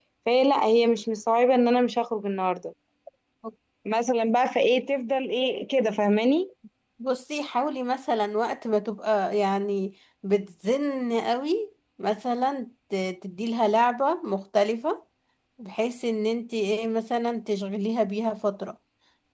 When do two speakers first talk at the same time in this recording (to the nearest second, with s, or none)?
none